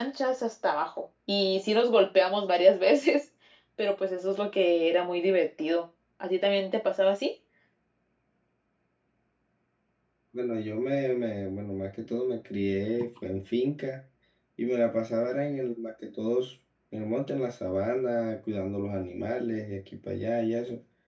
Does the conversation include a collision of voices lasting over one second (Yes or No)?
No